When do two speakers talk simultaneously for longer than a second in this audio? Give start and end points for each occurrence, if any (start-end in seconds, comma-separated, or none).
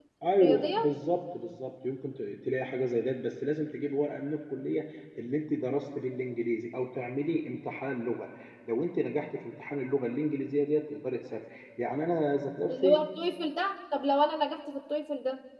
none